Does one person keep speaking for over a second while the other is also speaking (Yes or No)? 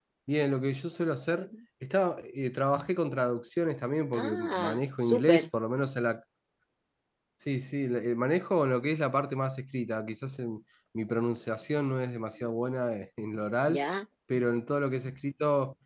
Yes